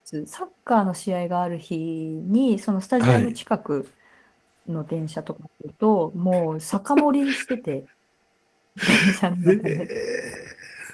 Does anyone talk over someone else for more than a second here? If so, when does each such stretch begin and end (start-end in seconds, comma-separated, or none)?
none